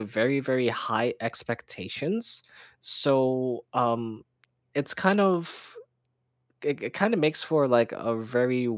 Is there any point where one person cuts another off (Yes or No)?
No